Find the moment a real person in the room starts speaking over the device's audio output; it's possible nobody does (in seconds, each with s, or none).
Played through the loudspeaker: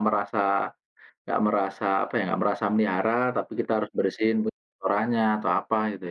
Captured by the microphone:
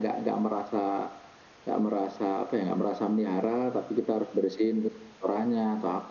none